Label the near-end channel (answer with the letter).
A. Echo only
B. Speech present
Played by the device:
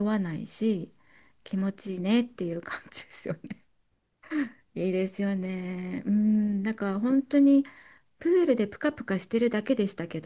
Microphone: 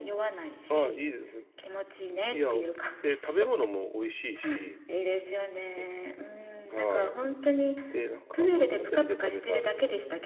B